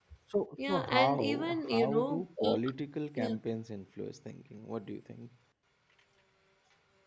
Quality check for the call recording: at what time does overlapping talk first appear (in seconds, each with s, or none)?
0.7 s